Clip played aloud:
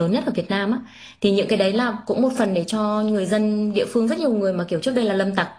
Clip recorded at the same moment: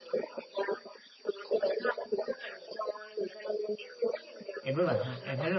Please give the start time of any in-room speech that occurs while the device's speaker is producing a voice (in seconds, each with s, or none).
4.6 s